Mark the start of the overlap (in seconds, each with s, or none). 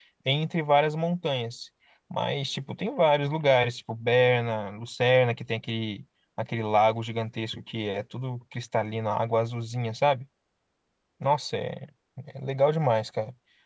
none